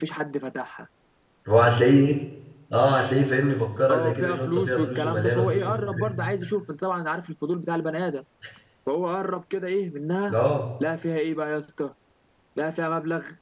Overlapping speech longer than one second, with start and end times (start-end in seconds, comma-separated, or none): 3.9-6.3